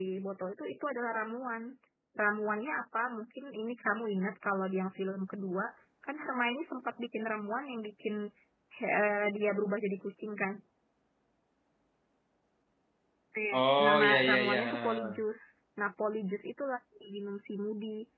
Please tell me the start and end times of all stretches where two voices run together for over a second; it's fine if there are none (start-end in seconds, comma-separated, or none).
13.6-15.2